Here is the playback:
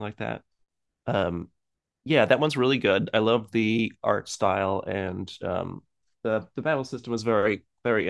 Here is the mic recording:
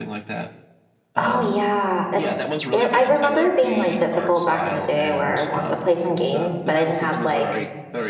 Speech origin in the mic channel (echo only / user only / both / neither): both